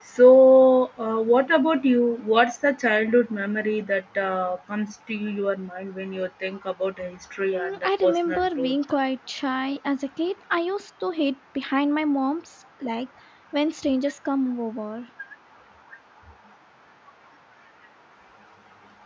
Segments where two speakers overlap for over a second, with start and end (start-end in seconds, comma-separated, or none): 7.5-8.8